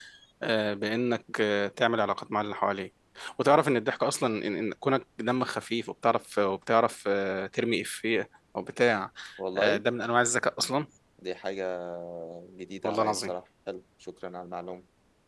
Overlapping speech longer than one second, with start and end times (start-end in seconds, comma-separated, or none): none